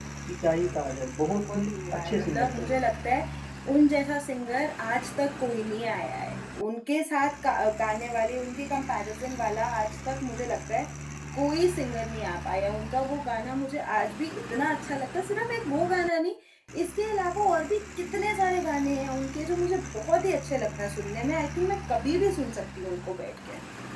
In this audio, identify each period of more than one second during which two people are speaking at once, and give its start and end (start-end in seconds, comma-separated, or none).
1.3-2.8